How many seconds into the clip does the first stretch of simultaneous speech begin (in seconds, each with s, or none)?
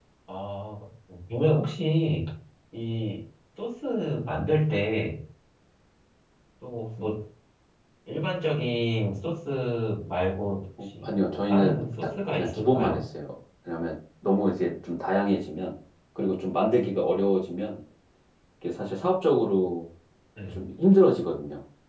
11.0 s